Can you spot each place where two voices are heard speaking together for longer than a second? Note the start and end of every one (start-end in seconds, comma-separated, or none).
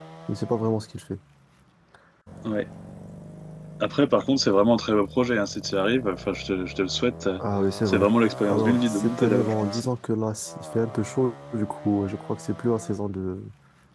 8.4-9.8